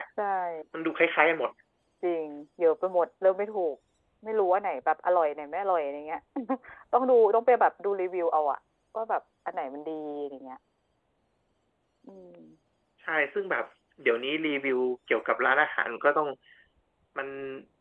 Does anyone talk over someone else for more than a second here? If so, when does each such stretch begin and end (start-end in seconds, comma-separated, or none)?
none